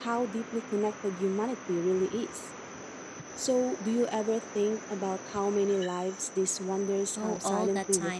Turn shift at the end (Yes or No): Yes